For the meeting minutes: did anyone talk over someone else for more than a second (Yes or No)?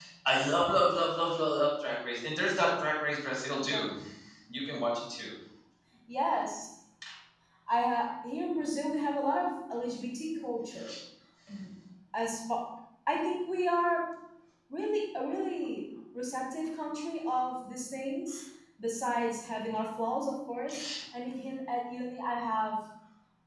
No